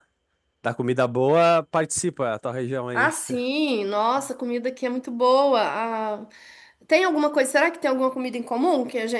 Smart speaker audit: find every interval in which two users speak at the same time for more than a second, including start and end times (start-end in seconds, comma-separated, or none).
none